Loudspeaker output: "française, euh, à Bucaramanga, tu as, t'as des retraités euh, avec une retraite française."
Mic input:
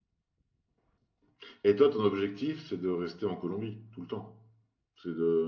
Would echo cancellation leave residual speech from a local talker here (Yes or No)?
Yes